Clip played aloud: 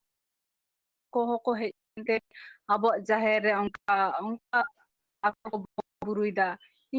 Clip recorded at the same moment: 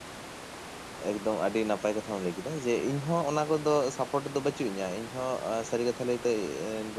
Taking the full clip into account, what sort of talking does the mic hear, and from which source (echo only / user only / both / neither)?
user only